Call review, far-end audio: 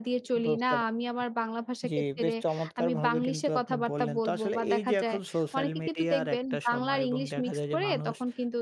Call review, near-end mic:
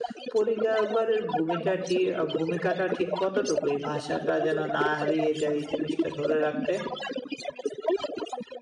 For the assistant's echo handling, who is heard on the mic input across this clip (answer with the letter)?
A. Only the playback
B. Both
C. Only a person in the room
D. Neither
B